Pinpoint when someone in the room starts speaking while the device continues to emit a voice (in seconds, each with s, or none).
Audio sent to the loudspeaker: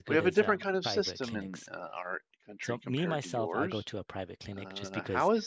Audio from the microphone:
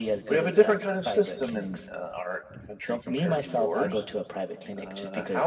none